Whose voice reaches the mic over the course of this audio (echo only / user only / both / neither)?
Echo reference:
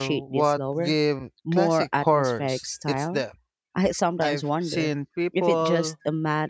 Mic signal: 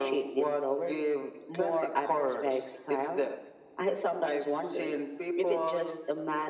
echo only